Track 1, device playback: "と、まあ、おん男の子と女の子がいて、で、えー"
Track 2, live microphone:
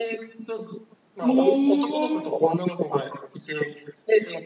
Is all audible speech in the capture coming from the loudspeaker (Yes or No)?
No